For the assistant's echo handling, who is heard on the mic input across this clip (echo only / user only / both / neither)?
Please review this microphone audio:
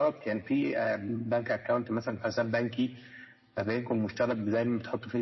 echo only